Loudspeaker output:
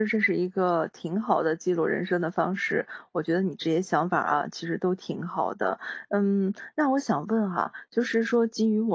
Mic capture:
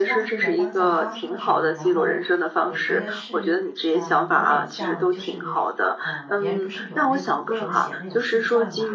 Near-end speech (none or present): present